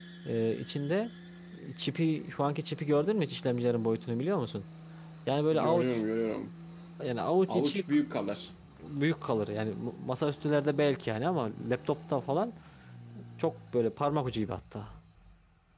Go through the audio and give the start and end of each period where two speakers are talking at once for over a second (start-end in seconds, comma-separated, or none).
none